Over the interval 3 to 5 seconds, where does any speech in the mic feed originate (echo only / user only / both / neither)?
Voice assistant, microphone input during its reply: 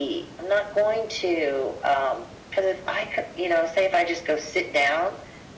echo only